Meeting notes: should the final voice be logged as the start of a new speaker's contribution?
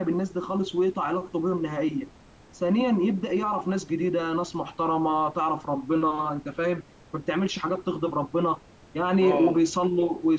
No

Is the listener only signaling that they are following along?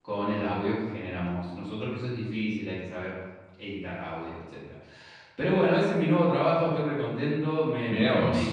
Yes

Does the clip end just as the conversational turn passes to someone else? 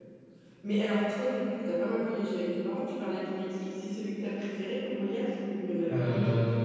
Yes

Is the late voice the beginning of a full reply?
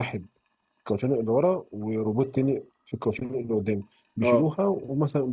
No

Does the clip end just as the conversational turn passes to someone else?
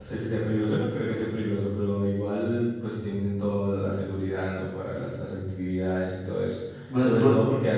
No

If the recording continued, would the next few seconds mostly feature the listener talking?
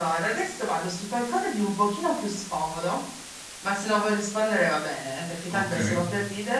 No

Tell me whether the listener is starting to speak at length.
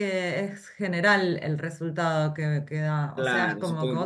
Yes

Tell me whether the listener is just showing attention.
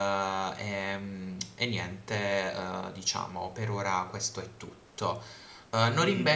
Yes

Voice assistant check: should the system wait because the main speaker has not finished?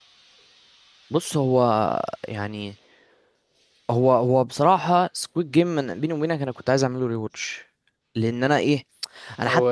Yes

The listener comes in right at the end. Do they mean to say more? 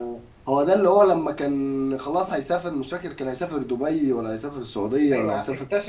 Yes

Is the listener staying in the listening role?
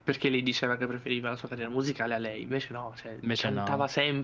Yes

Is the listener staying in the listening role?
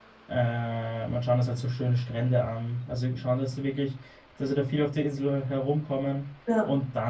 Yes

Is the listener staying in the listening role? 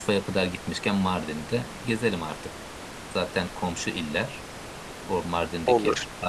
Yes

